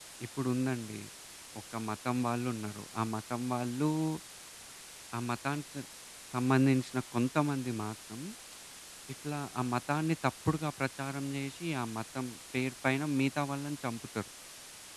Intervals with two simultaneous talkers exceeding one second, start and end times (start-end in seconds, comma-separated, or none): none